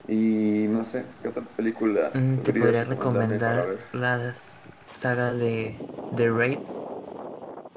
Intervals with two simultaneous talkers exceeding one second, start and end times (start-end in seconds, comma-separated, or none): 2.4-3.7